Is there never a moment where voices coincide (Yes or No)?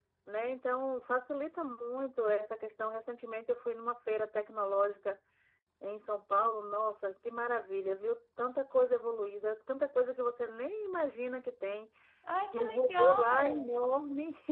No